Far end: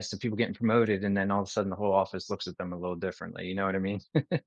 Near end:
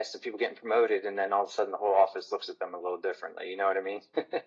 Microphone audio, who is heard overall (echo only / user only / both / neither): echo only